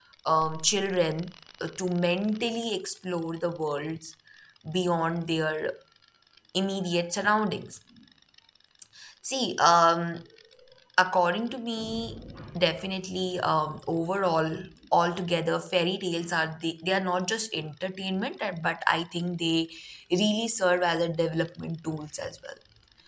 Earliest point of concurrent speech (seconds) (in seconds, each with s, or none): none